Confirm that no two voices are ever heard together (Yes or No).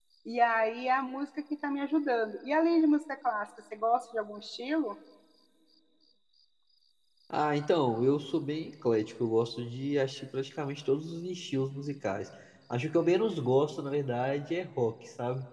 Yes